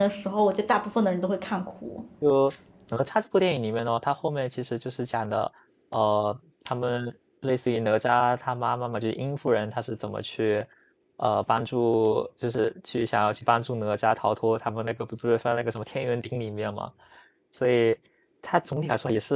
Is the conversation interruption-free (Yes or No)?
Yes